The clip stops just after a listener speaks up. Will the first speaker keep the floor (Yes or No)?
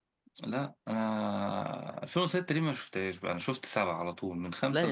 No